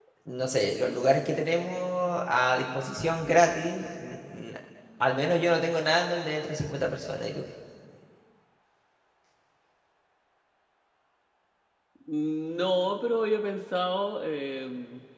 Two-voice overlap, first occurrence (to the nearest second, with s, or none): none